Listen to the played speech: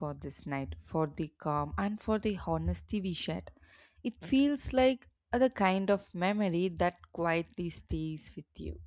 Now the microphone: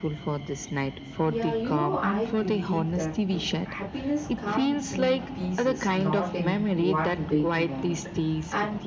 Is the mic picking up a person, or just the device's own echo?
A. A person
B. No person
A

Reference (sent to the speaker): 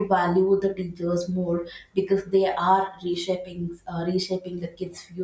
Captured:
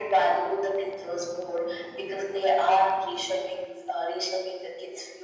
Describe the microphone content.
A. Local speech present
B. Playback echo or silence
B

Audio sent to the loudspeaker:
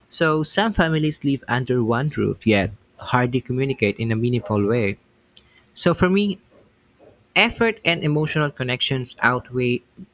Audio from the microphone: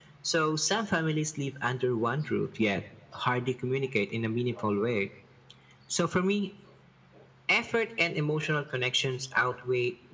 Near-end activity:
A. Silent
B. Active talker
A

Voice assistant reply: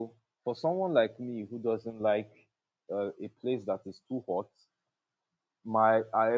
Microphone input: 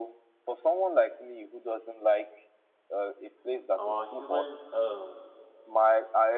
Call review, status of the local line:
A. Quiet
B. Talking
B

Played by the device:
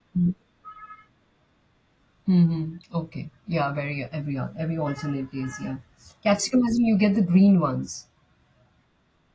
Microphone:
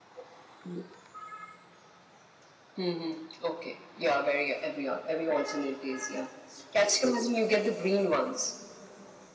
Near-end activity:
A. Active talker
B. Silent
B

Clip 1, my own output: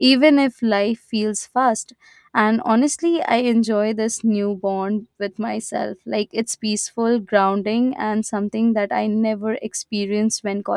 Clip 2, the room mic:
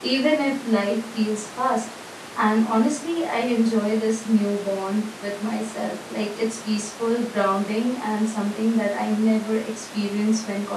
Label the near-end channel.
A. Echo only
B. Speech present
A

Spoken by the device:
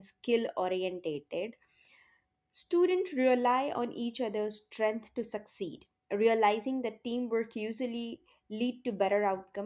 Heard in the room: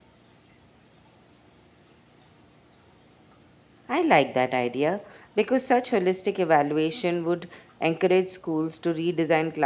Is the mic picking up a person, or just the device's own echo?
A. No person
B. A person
B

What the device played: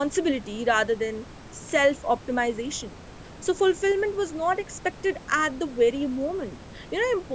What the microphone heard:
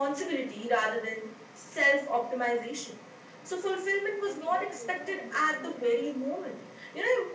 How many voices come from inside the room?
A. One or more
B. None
A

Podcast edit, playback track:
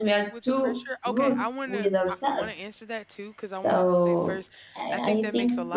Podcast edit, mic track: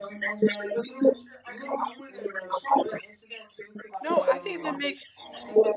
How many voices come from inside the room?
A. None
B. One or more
B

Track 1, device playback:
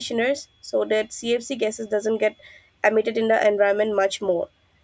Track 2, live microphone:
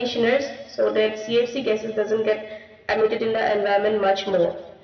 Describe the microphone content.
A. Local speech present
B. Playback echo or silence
B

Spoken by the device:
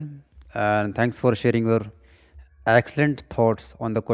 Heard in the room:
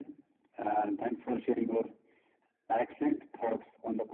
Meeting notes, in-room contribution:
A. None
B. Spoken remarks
A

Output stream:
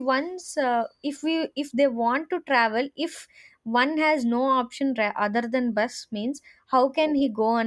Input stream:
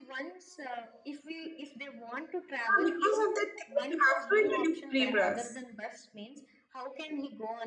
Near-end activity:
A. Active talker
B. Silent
A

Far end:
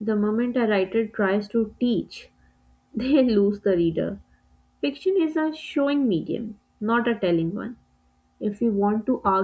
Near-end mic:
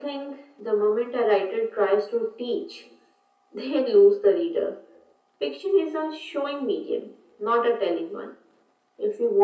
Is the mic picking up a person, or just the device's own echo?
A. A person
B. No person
B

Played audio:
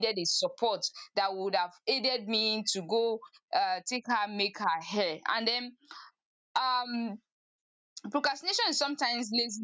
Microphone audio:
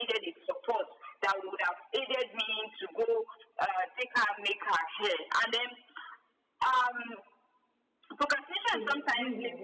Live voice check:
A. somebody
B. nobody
A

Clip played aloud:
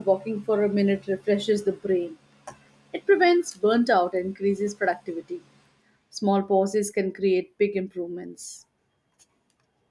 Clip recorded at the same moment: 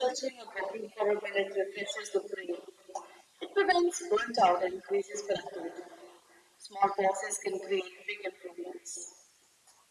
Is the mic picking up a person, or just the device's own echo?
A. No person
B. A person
A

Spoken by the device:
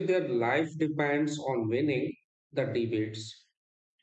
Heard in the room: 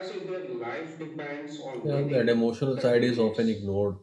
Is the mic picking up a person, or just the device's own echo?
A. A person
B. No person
A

